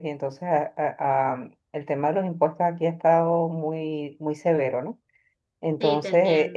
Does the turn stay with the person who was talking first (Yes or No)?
Yes